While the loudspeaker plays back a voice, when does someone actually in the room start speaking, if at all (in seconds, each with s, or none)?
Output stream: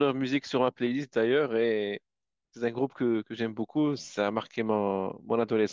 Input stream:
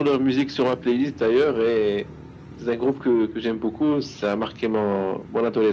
none